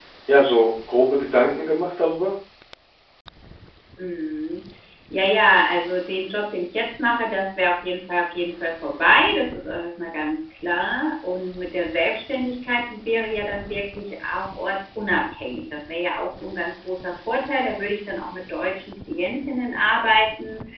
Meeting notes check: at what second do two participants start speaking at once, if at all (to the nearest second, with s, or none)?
none